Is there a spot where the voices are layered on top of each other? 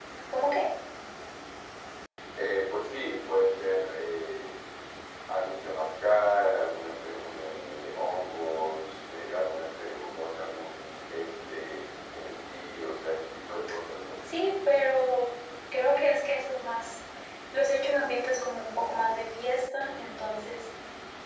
No

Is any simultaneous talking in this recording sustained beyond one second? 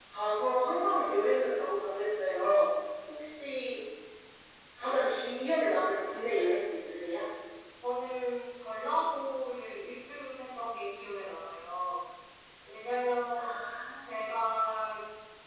No

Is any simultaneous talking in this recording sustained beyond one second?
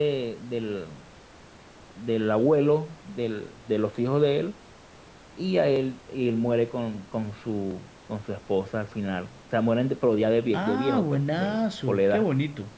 Yes, from 10.5 s

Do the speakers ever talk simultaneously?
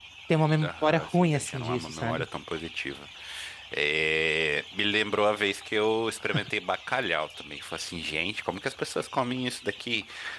Yes, from 0.6 s

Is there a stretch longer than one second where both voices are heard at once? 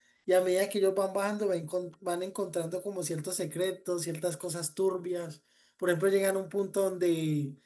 No

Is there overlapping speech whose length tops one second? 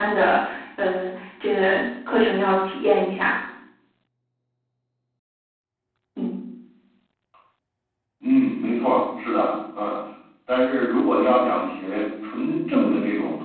No

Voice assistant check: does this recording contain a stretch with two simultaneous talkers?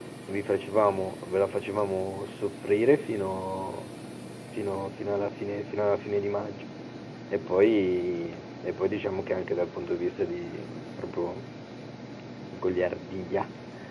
No

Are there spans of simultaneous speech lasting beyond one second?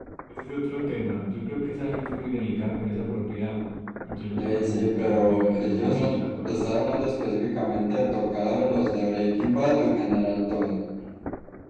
Yes, from 4.4 s

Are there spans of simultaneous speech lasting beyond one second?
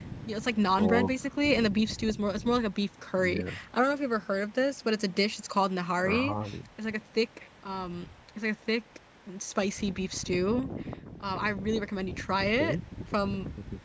No

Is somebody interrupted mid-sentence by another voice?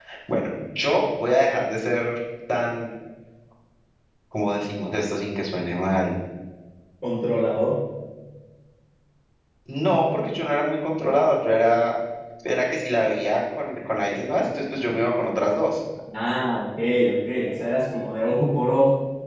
No

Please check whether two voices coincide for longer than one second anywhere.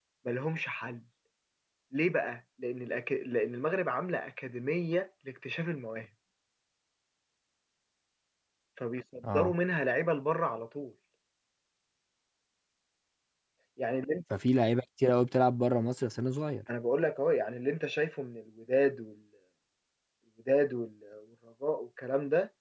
No

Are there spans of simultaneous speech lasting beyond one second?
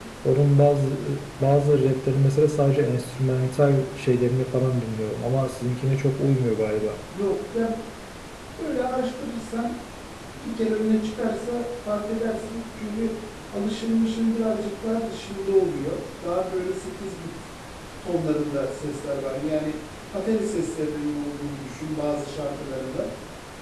No

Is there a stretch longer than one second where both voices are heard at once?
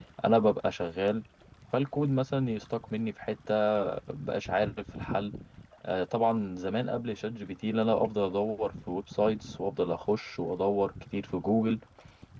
No

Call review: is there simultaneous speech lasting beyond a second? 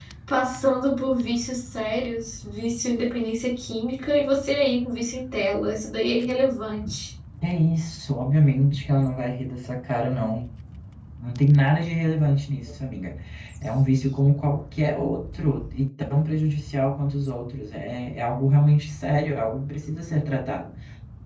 No

